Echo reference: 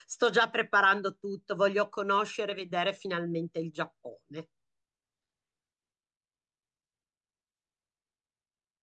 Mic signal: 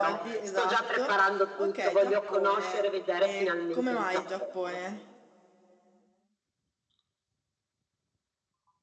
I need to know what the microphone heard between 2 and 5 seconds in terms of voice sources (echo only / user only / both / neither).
both